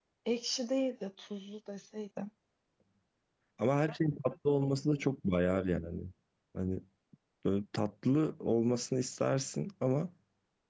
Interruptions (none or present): none